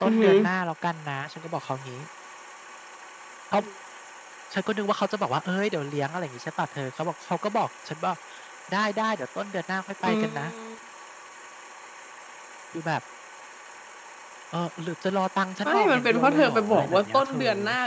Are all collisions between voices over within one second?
No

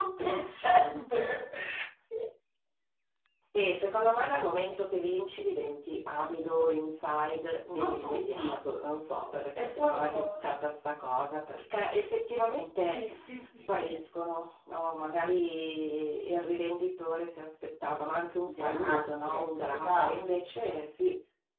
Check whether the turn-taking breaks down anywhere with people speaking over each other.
Yes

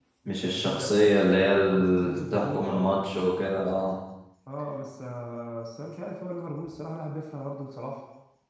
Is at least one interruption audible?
Yes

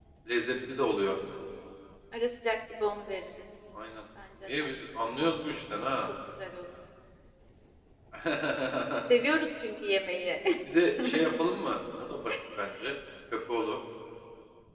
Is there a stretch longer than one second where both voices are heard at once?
No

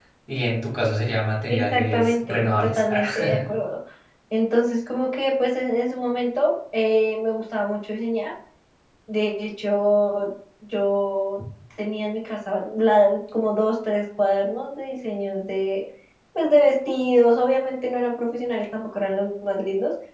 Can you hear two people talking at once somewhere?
Yes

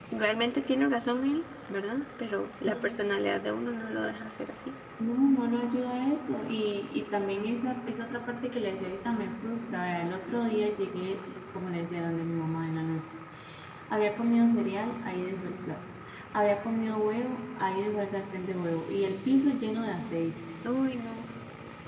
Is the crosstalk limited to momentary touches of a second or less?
Yes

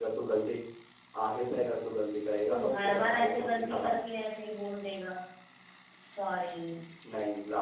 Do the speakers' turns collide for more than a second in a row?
Yes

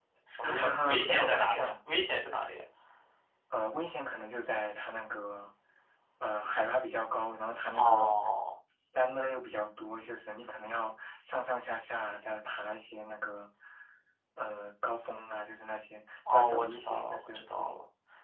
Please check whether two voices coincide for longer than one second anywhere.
Yes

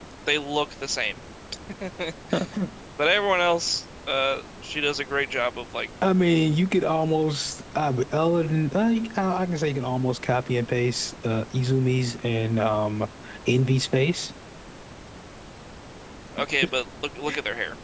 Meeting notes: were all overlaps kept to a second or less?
Yes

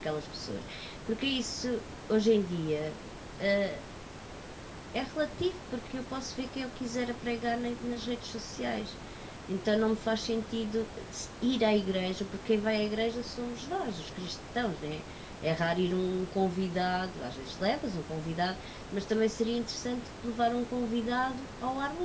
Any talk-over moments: No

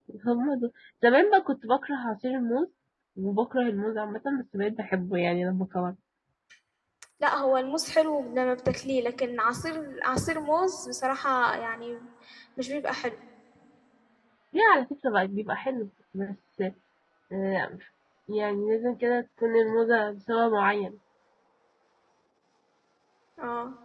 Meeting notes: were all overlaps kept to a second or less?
Yes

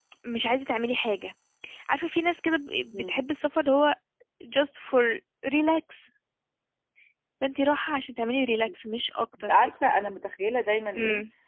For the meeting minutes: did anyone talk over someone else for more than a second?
No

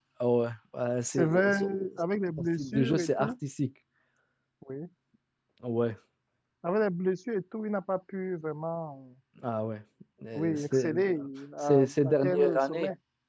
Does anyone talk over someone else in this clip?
Yes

